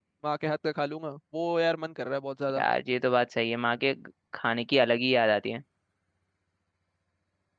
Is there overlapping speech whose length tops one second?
No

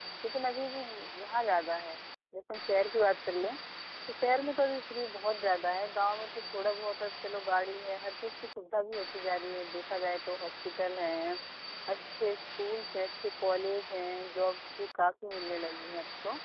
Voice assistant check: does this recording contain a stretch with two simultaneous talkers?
No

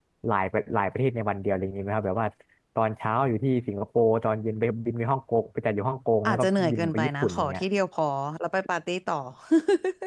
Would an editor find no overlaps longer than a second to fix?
No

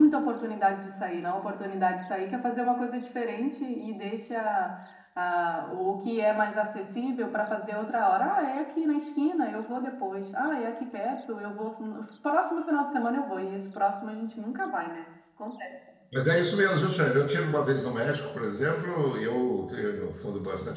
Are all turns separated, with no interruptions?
Yes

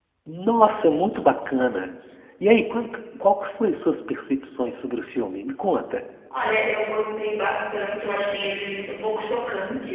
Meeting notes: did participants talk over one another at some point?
No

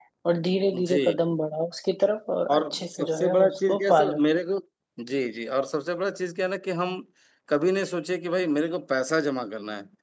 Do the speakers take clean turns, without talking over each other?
No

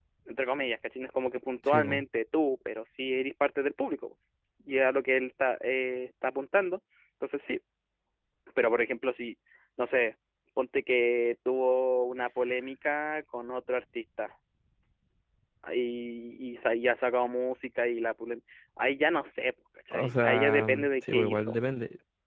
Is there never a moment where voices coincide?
No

